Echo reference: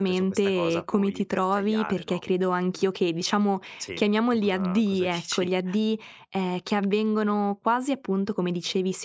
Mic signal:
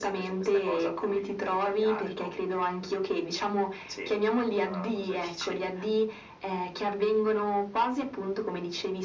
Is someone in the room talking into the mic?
No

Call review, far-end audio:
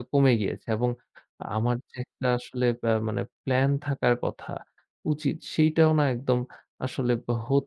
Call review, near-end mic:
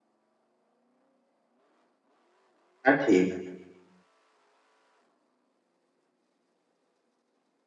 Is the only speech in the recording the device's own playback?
No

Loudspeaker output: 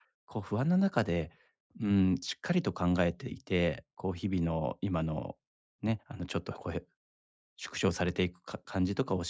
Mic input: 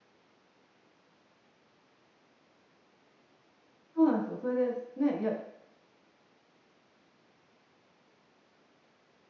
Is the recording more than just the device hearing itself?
Yes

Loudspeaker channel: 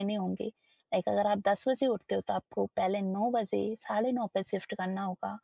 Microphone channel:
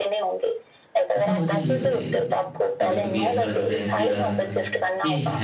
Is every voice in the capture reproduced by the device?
No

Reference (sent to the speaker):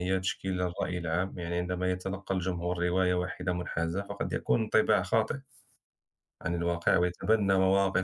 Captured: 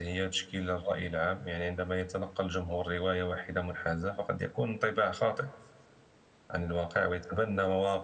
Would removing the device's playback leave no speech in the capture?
Yes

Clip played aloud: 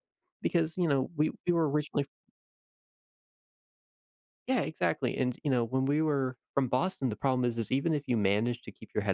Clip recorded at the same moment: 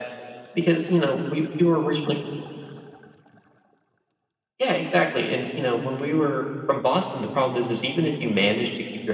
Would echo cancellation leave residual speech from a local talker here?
No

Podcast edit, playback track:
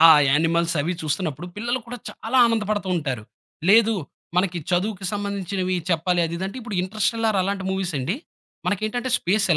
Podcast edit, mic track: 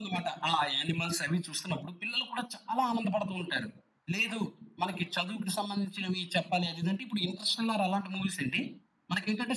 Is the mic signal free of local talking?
Yes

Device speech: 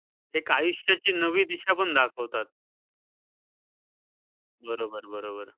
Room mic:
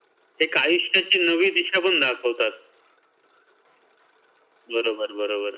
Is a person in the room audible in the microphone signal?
No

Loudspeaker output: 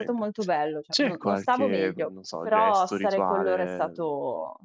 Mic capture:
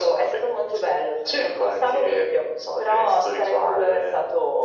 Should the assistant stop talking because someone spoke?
No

